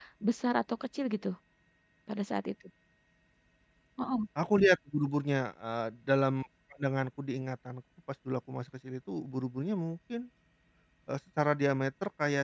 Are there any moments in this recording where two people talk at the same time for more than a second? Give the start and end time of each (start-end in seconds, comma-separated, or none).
none